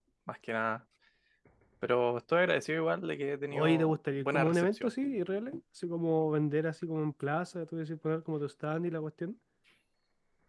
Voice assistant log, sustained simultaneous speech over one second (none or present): present